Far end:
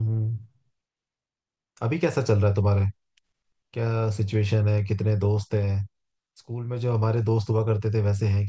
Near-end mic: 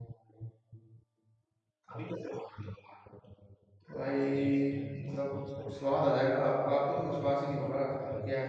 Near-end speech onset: 4 s

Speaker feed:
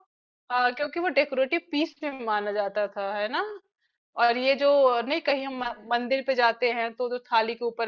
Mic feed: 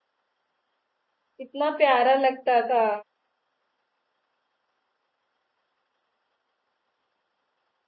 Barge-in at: 1 s

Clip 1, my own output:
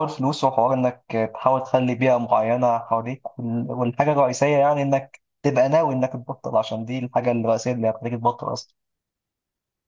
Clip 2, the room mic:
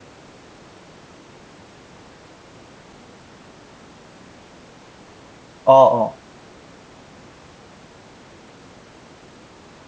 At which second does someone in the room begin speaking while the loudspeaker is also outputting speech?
6 s

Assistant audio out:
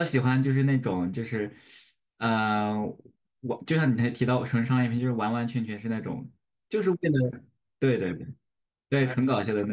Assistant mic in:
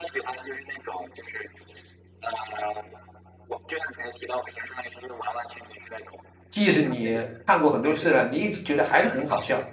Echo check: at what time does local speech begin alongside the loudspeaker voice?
7 s

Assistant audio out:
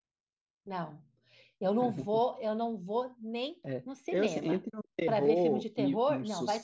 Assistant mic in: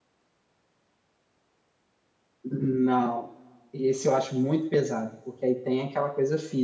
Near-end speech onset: 2 s

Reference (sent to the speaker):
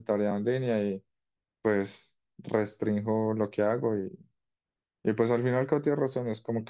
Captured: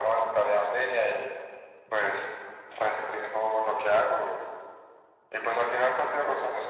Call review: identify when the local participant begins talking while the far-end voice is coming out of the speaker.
none

